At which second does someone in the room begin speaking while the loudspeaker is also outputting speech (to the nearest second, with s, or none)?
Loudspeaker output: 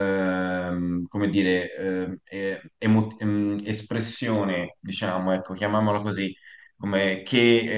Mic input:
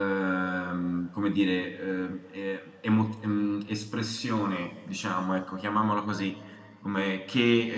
none